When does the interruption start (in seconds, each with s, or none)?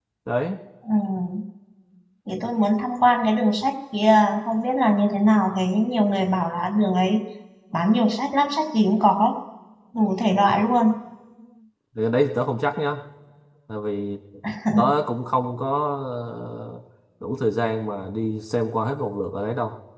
none